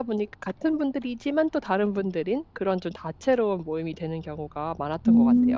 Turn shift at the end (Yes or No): Yes